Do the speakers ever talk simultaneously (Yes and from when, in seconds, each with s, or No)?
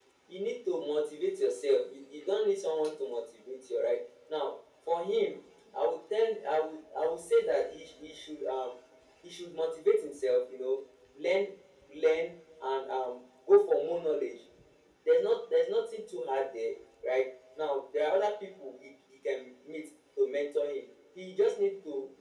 No